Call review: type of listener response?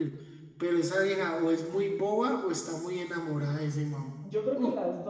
taking over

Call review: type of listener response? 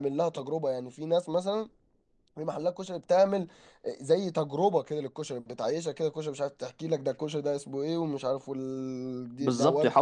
taking over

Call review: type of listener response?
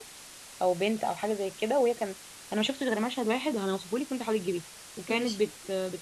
listening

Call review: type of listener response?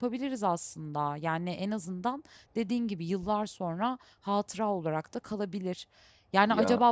listening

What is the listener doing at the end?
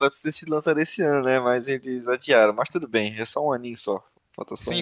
taking over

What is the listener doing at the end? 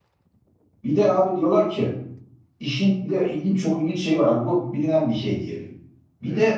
listening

